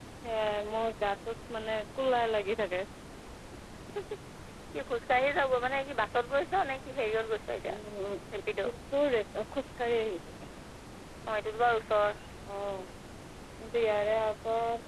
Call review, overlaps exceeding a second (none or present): none